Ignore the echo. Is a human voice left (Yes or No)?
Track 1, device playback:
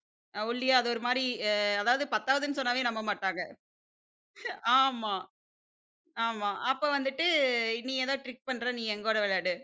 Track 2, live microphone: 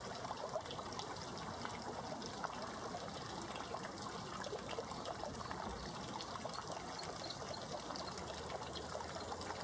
No